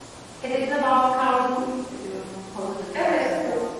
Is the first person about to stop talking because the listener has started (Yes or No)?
Yes